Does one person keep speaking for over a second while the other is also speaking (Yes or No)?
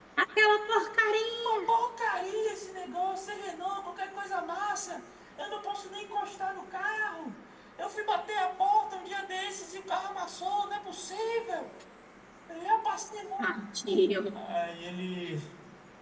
No